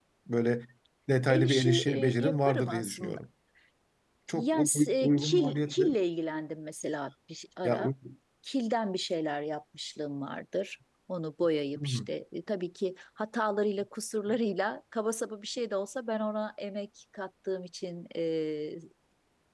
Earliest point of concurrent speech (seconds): 1 s

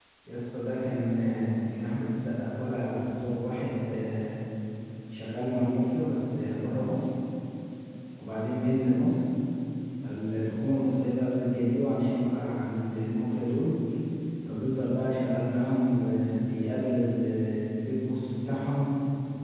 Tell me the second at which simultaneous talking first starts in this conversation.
none

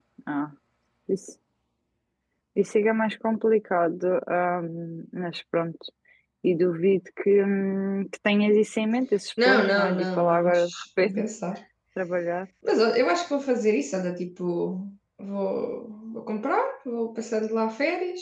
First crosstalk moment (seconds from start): 9 s

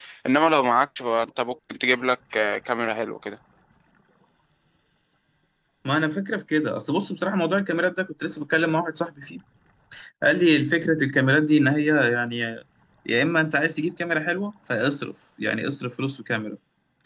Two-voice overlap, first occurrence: none

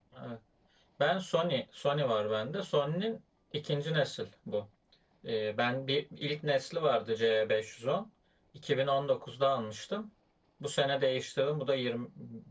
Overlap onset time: none

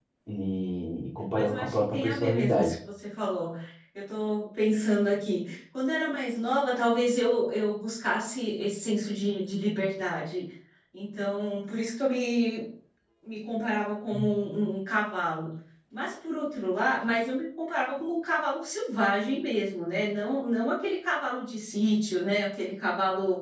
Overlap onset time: 1 s

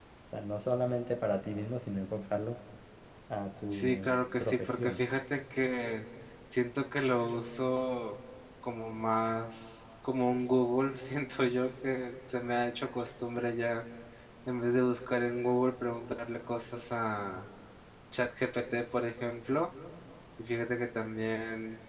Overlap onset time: 4 s

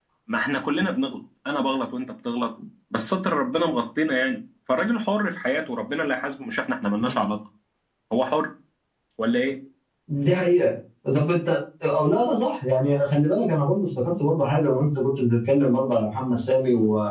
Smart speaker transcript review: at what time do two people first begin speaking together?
none

